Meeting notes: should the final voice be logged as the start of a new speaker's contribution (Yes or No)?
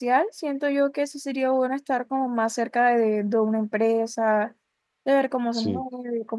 No